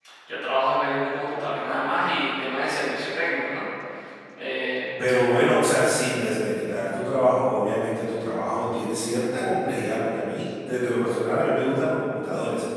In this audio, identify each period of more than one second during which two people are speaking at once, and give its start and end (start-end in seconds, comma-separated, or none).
none